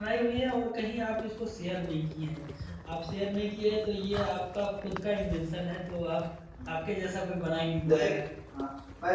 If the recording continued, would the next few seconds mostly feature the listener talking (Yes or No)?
Yes